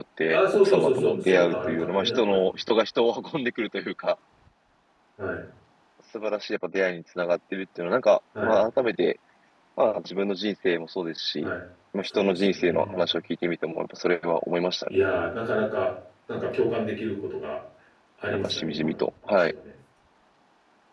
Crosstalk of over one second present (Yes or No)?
Yes